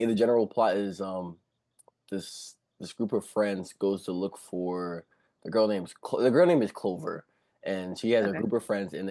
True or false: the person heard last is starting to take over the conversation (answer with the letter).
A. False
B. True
A